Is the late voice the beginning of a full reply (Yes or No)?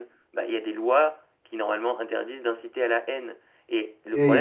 Yes